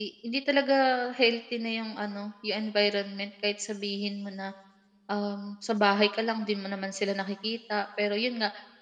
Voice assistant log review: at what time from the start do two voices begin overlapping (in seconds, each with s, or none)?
none